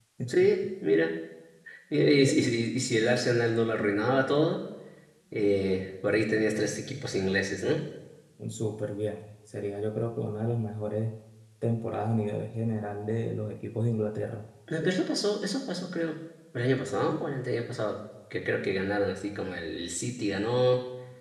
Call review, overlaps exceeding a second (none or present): none